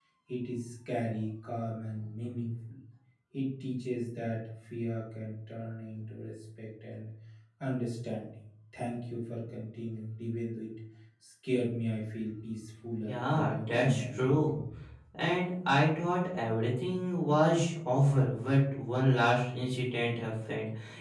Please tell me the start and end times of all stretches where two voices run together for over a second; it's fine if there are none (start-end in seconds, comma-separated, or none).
13.1-14.4